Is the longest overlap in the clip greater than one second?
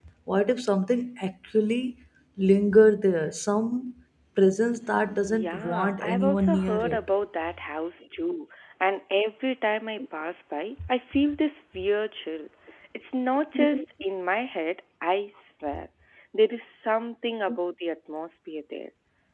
Yes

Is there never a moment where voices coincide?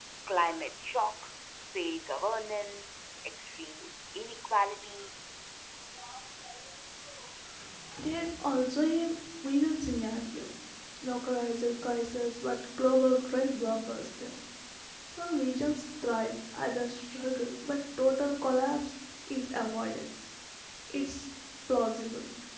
Yes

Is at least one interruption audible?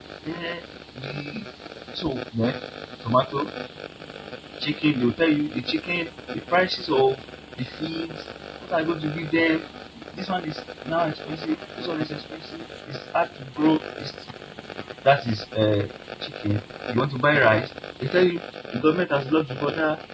No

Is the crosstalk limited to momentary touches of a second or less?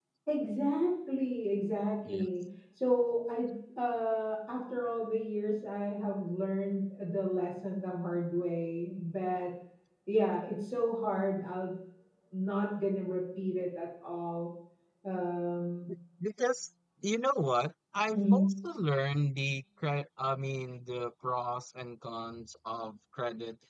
Yes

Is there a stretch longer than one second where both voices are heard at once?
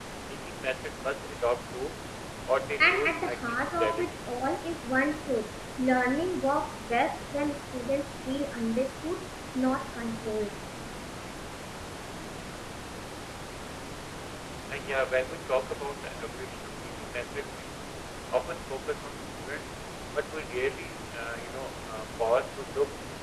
Yes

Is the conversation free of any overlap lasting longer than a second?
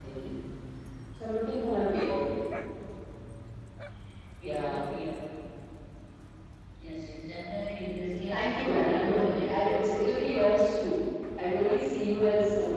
No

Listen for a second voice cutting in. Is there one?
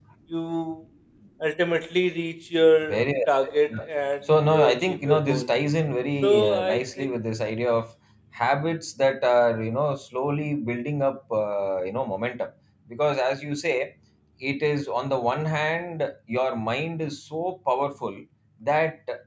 Yes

